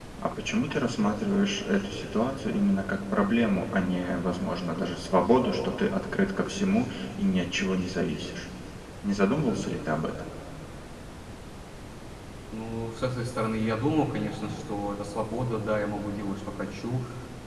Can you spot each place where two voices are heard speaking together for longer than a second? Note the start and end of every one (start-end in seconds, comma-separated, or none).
none